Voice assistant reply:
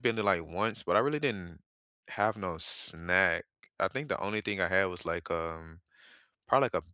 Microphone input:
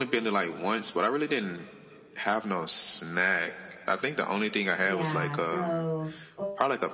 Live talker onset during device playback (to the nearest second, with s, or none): 5 s